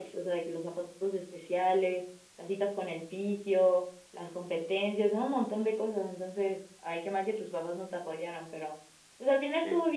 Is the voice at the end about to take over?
No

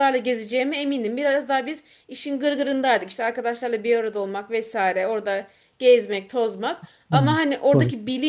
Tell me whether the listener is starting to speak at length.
No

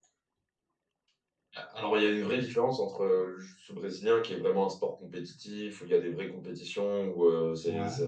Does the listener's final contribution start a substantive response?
No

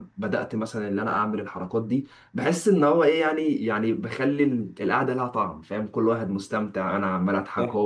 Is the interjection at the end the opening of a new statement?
No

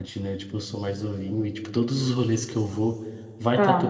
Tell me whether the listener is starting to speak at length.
No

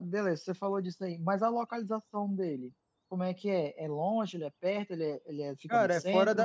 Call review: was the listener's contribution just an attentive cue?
No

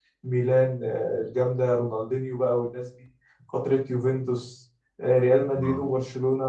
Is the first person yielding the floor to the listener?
No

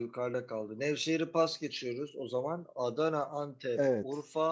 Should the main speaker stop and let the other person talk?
No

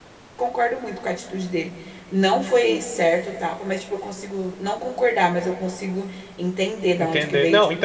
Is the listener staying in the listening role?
No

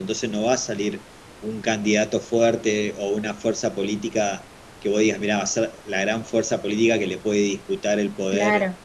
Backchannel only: No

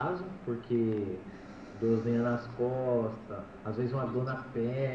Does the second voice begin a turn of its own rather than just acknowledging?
No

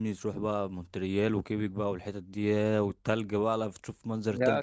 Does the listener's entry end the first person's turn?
Yes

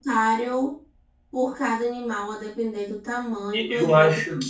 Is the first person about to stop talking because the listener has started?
Yes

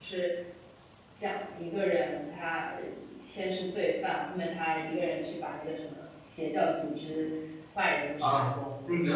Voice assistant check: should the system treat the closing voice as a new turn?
Yes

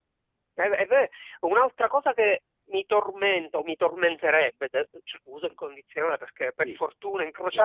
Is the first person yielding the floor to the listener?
No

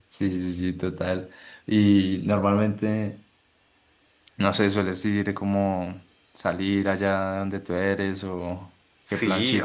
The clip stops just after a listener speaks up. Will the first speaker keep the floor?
No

